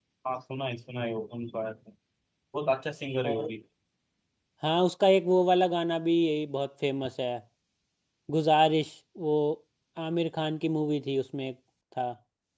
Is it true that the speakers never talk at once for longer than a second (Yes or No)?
Yes